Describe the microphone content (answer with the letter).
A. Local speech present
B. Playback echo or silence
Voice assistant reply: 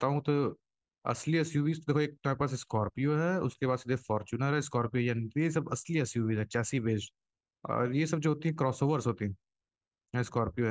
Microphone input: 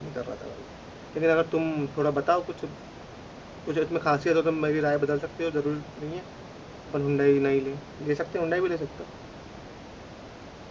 A